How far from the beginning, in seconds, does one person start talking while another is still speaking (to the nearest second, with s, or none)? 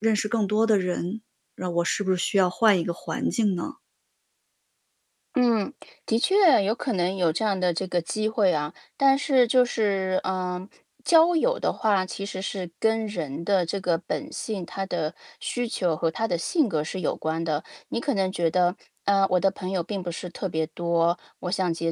none